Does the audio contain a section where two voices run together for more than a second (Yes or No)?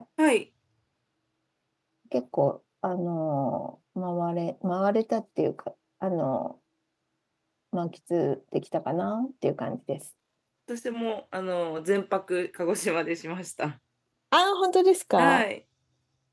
No